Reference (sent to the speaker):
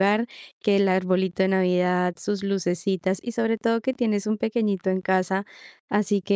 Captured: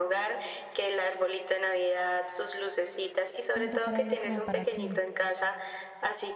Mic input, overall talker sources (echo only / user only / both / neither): both